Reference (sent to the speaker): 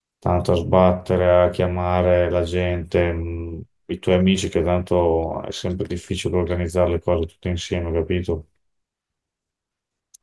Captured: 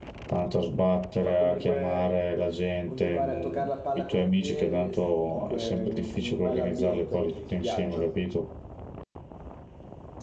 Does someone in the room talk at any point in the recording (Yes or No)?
Yes